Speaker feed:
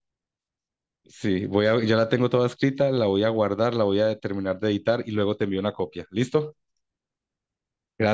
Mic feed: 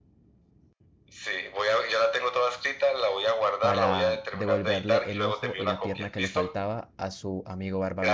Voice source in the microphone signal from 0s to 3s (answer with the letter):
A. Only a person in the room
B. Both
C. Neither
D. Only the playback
D